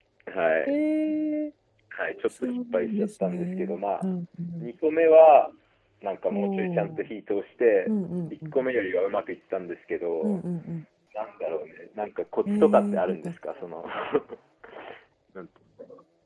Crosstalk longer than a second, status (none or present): present